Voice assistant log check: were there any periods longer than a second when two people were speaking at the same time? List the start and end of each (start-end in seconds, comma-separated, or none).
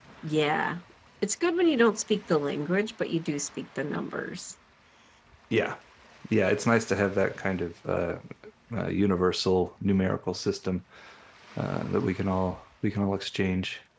none